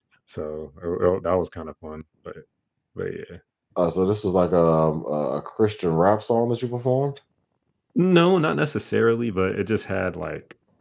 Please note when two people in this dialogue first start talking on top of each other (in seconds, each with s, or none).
none